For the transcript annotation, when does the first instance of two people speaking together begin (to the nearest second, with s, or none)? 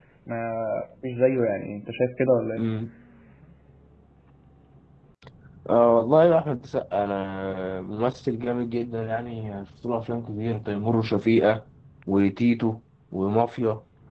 none